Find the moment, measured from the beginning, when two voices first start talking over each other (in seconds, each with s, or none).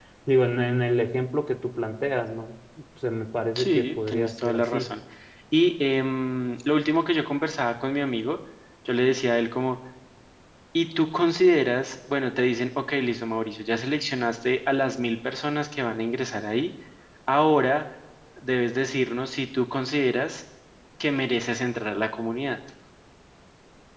3.6 s